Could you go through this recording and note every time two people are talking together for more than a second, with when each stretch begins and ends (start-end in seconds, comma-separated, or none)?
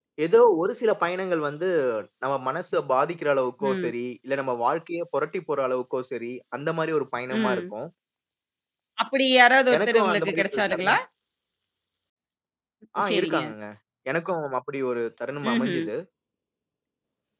9.8-10.9